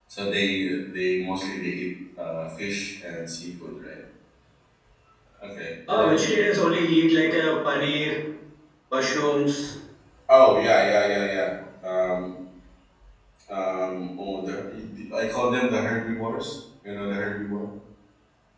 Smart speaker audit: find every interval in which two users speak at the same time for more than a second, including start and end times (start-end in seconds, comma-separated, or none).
none